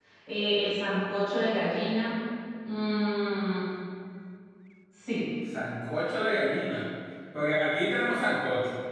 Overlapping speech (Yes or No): No